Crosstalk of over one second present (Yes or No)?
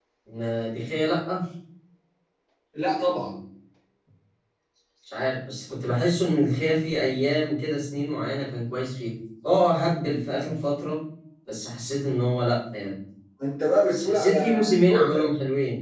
Yes